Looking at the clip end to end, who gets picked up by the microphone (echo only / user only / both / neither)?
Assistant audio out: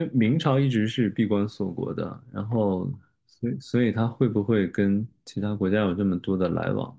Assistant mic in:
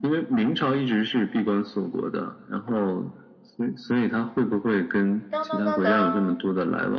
both